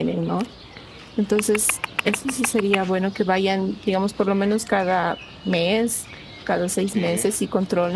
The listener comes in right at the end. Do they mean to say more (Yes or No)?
No